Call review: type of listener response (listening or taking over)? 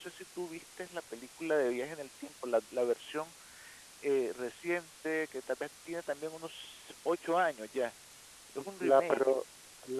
taking over